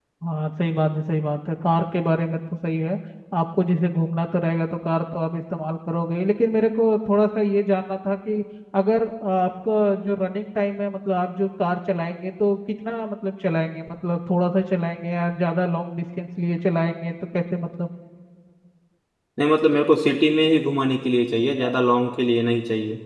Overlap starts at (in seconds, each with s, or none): none